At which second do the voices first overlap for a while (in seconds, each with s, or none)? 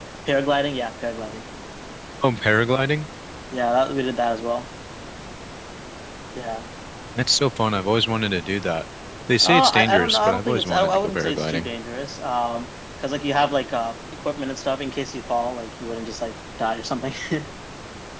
9.4 s